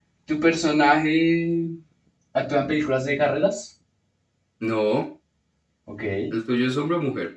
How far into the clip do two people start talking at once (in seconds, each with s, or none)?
none